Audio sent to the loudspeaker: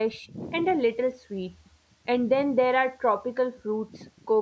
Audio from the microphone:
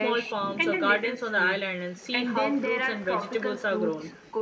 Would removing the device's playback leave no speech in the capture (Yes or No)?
No